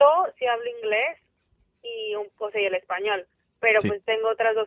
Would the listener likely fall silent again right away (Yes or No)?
Yes